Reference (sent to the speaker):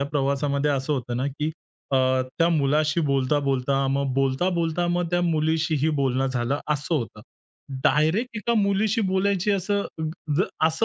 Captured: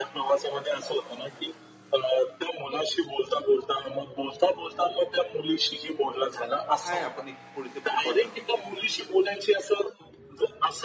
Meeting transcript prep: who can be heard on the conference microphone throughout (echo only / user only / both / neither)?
both